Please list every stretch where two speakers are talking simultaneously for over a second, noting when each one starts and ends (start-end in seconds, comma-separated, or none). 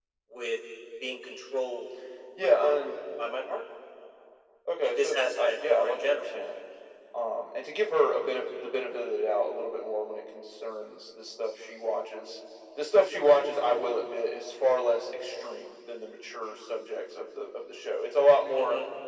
4.8-6.2